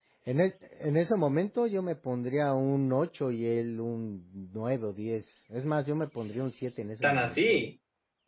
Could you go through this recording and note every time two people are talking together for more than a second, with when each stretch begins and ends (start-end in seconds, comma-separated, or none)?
6.2-7.7